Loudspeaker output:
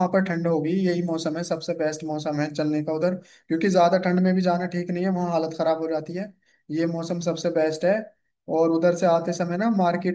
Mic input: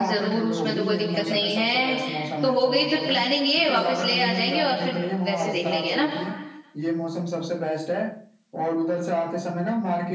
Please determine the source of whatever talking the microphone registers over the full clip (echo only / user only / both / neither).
both